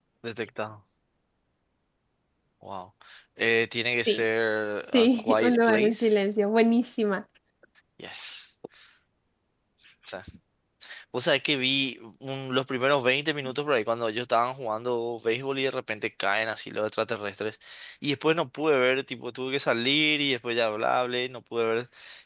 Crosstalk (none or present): present